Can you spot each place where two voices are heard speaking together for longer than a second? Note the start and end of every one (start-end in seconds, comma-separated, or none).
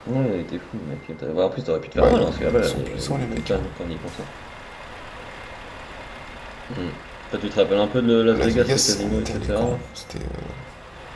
2.0-3.6, 8.3-9.8